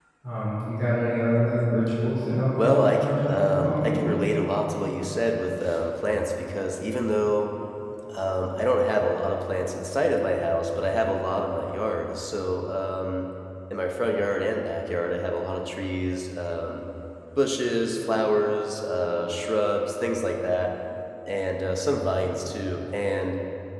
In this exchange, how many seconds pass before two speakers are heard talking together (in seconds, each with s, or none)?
2.6 s